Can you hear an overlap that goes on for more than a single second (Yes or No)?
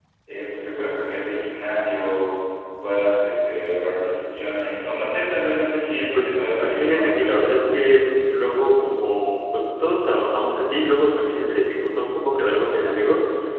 Yes